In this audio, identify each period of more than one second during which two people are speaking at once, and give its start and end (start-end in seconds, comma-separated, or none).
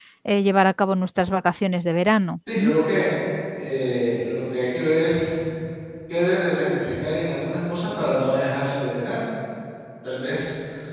none